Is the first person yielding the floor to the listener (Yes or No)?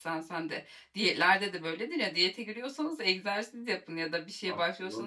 No